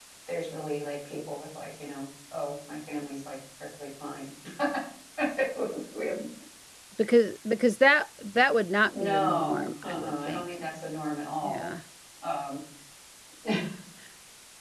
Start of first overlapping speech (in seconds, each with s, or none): 8.9 s